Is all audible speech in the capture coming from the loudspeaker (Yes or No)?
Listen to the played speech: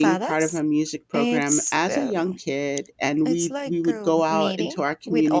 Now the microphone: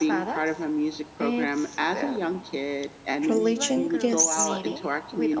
No